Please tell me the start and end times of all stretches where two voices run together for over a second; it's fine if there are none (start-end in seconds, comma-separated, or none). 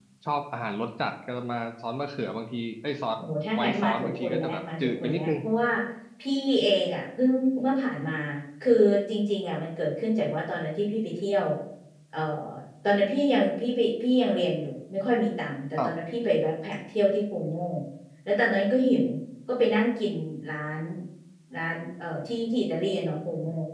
3.6-5.3